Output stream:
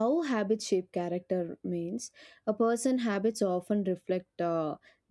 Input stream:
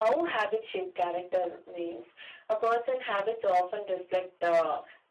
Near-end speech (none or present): none